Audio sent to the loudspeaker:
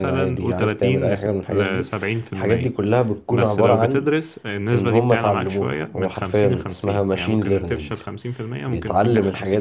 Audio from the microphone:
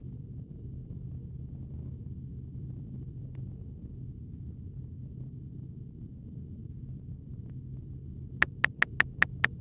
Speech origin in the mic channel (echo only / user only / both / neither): neither